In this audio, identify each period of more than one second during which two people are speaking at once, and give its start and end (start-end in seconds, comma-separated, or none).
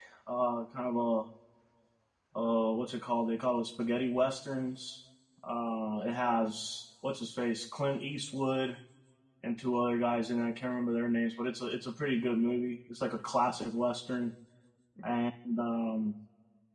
none